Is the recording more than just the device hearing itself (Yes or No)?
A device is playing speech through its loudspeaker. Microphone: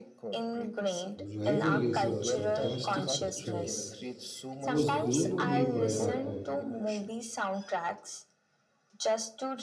Yes